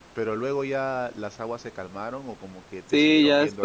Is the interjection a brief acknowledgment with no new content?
No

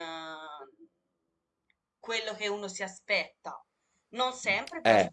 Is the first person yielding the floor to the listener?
No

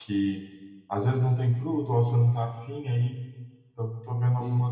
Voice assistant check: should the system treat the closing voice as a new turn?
No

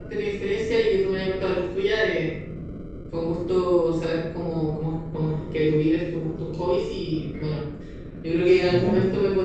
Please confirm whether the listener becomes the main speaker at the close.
No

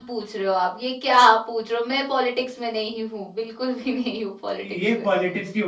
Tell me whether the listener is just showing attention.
No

